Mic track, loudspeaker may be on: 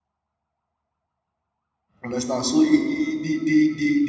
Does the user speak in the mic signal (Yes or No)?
Yes